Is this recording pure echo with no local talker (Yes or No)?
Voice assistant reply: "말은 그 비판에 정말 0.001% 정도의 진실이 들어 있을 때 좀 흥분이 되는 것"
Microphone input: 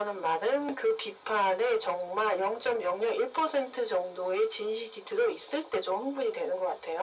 Yes